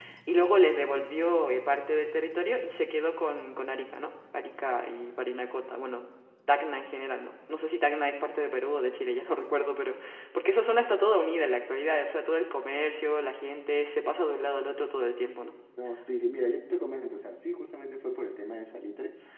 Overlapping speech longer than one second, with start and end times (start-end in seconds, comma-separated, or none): none